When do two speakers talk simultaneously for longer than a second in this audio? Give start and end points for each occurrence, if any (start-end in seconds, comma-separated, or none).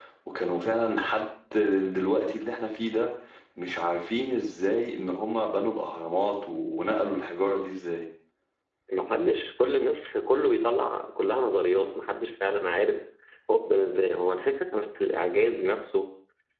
none